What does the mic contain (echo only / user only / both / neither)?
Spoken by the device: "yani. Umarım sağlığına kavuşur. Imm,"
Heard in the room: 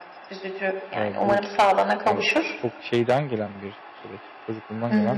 both